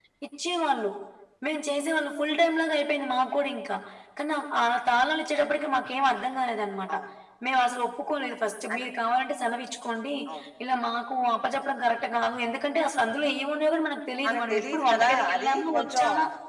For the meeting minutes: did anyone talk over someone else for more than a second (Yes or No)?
Yes